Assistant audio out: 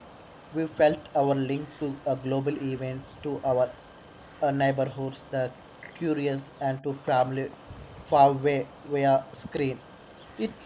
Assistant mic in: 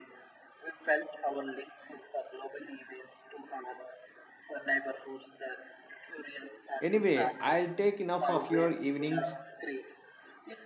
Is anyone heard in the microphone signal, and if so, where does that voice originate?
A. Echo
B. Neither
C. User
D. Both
D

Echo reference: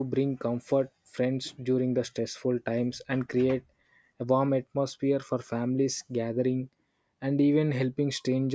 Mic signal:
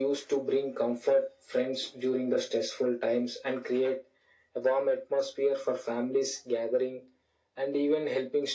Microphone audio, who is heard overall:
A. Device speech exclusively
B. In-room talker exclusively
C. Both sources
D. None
A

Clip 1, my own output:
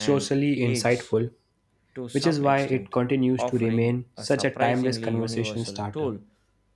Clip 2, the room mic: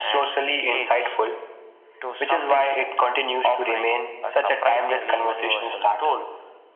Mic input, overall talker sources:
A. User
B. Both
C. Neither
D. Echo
D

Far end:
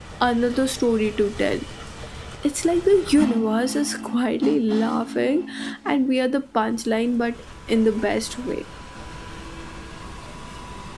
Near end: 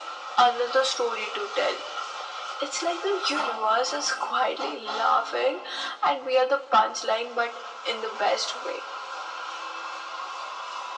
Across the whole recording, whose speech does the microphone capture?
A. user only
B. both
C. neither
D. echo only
D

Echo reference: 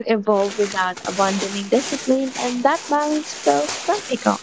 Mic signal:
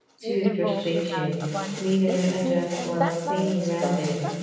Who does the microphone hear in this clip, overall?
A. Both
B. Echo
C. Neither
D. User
A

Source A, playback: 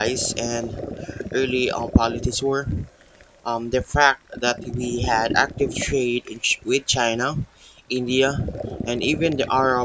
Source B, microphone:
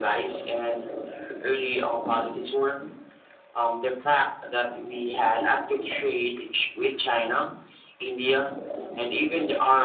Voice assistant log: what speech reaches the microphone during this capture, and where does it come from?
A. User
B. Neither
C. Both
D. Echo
D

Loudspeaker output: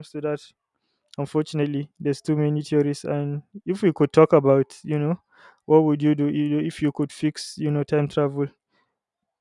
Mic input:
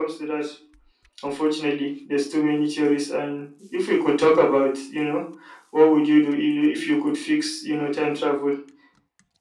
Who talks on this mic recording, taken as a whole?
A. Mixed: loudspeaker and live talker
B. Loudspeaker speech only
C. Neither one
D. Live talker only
B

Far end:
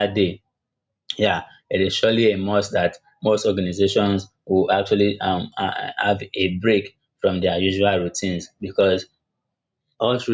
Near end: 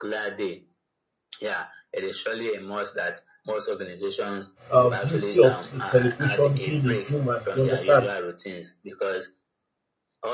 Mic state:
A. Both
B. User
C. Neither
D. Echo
A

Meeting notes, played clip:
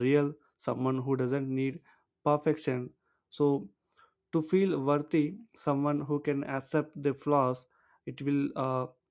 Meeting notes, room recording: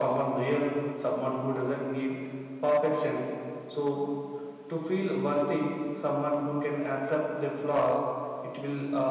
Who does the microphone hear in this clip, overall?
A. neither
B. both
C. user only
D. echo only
D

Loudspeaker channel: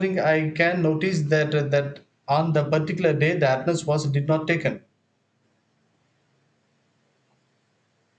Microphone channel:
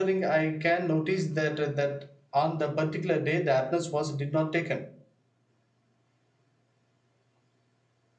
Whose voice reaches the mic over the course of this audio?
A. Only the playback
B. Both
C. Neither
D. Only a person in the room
A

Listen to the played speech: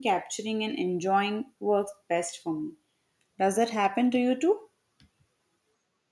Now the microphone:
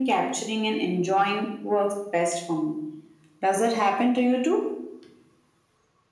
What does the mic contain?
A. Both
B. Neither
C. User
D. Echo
D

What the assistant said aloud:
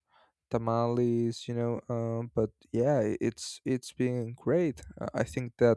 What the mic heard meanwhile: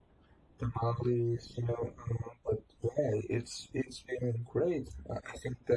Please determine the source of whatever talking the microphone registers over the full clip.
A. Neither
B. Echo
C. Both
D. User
B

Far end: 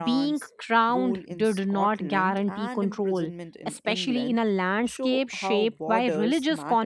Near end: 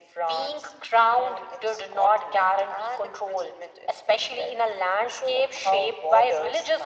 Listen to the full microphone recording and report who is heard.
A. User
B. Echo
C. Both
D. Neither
B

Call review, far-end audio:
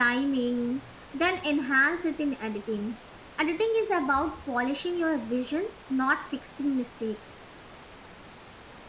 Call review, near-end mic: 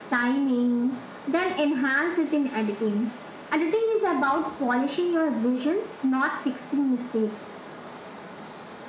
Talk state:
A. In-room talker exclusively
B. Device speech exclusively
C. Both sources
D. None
B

